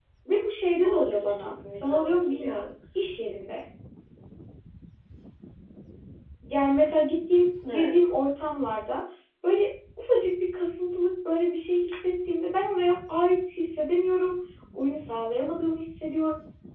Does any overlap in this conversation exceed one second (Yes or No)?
Yes